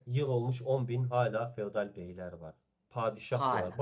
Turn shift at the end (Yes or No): No